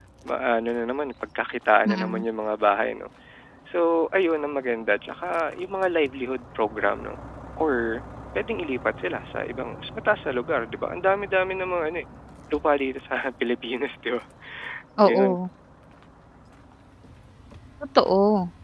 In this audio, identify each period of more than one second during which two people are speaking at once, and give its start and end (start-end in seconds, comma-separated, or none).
none